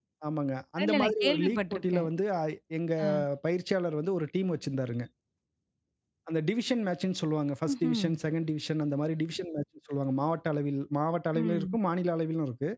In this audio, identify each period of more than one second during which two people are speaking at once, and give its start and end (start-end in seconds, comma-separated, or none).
0.8-2.1